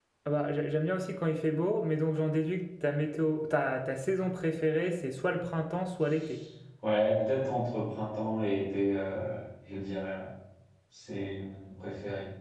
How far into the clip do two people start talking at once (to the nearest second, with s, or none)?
none